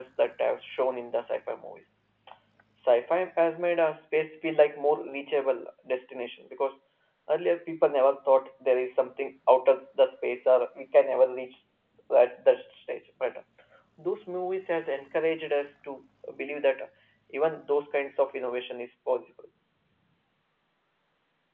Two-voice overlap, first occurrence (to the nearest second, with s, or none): none